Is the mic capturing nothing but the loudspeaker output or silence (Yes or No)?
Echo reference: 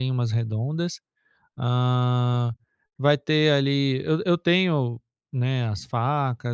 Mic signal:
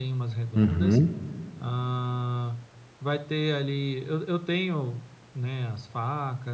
No